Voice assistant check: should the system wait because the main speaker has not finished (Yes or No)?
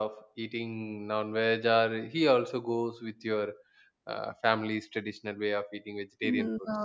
No